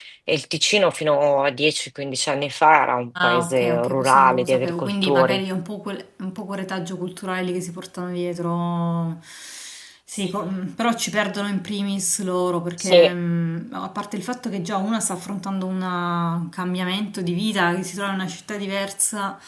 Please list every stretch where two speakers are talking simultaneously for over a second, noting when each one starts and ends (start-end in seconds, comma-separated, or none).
3.2-5.4